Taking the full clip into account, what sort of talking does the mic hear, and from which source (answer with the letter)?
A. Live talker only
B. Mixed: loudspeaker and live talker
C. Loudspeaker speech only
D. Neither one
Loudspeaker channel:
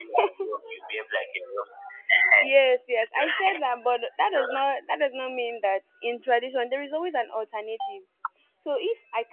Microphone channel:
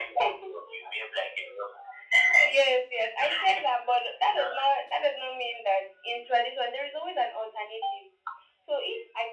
C